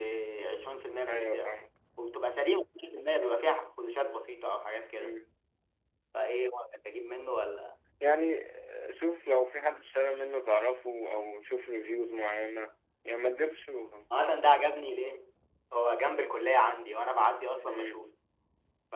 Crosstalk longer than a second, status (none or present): none